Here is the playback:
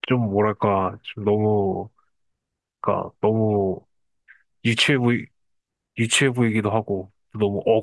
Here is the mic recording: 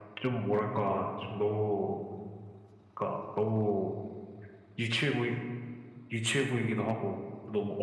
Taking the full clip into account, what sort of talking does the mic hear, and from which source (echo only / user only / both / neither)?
echo only